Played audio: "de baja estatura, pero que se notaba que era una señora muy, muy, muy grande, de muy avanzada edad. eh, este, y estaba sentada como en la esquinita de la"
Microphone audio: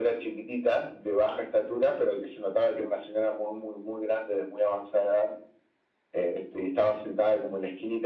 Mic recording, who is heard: echo only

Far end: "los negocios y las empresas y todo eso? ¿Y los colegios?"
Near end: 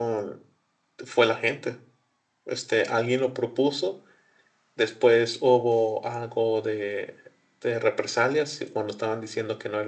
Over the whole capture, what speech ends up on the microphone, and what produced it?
user only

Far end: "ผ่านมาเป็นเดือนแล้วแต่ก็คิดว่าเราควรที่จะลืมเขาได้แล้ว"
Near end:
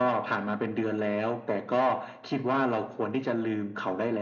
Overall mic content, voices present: echo only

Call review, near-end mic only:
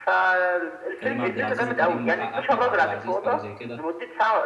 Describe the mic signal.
both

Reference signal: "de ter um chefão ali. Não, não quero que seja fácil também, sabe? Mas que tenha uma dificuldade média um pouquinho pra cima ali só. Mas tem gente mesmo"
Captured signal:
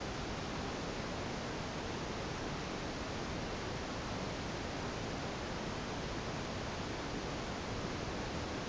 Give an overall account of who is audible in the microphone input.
neither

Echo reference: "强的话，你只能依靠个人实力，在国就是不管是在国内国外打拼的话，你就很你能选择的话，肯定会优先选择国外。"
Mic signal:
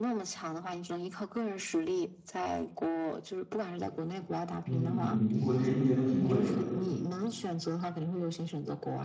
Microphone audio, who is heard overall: both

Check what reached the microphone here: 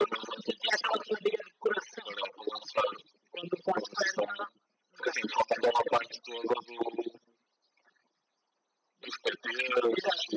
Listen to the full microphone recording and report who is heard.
echo only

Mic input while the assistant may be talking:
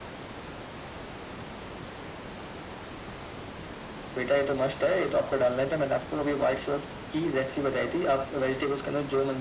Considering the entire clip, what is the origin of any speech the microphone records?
echo only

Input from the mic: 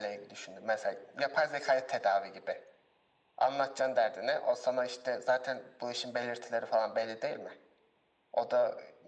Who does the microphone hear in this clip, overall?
echo only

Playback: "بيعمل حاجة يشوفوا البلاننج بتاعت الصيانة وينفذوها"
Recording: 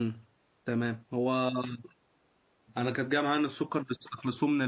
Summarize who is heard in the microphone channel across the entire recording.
user only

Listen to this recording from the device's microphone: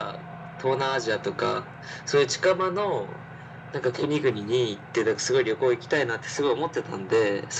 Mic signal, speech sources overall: echo only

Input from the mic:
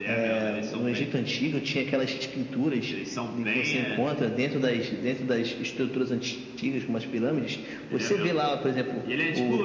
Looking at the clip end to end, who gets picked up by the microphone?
echo only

